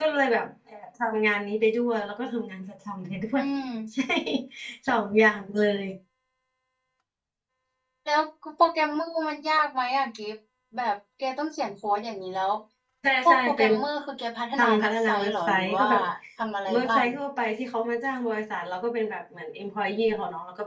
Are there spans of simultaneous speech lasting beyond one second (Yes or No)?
Yes